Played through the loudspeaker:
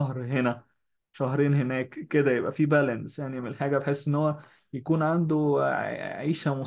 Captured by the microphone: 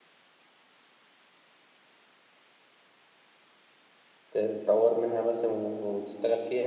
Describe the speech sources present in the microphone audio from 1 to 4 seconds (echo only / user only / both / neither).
neither